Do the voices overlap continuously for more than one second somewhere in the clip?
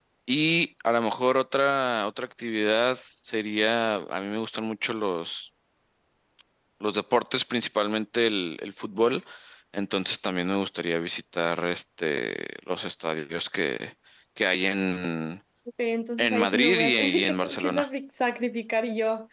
Yes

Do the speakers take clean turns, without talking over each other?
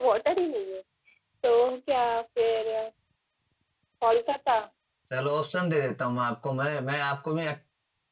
Yes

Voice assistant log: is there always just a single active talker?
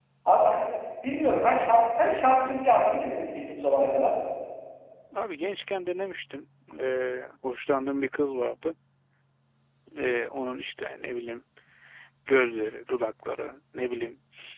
Yes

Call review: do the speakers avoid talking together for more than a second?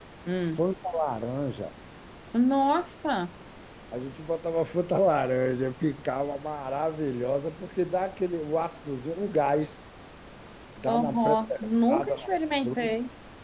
No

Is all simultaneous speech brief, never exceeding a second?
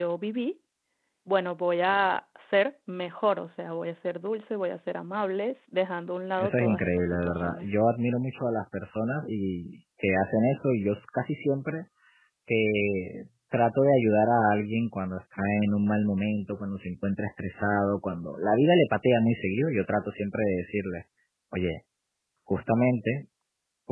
No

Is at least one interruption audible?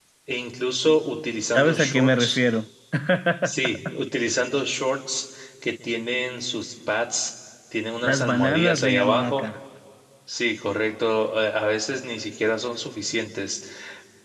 Yes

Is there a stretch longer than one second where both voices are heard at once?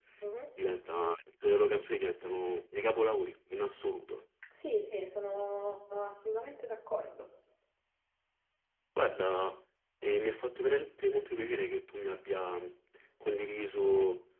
No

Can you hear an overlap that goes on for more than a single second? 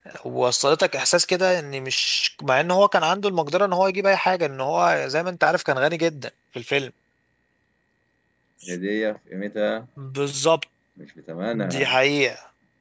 No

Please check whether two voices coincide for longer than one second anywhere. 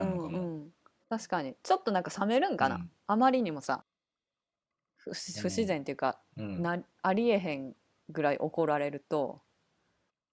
No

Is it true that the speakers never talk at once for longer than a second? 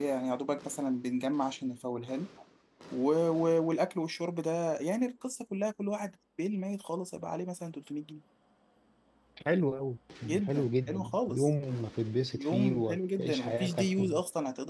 No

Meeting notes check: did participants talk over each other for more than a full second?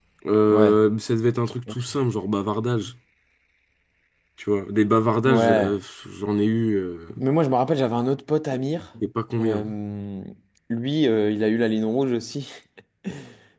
No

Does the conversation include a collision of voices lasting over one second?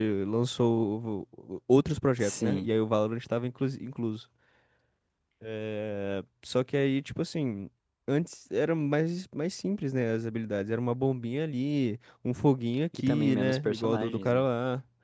Yes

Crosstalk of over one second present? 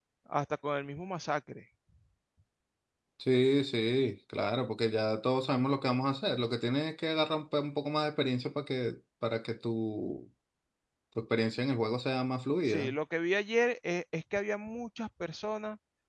No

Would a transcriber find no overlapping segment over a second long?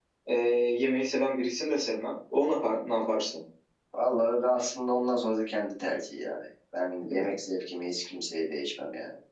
Yes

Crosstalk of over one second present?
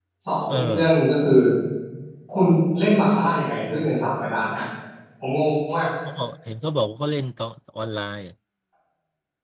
No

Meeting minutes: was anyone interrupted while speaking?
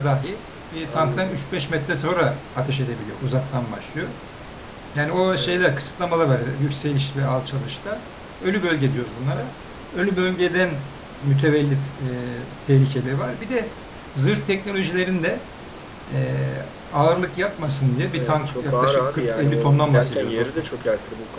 Yes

